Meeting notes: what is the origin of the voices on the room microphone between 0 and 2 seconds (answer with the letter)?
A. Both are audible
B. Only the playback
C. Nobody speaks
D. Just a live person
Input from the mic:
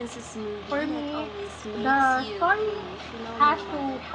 B